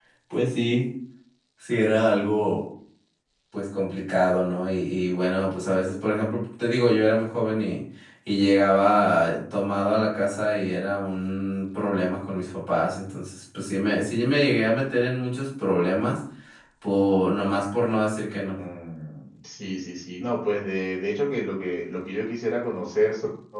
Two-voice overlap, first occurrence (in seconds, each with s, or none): none